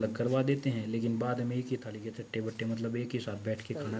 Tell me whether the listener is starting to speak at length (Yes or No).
Yes